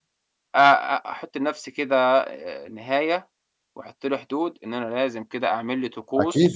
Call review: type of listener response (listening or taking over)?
taking over